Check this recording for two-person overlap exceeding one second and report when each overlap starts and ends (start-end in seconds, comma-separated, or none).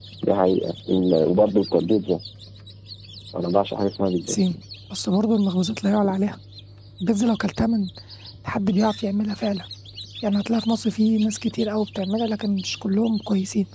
none